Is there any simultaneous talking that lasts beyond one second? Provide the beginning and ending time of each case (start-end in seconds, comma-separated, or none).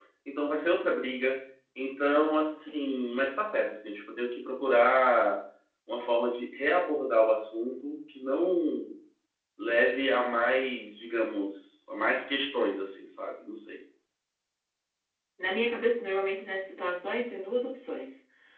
none